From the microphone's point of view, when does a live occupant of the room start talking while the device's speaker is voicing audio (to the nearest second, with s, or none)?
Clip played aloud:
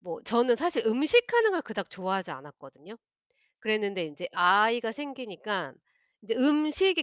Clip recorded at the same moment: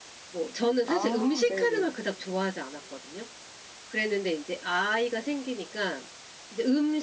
1 s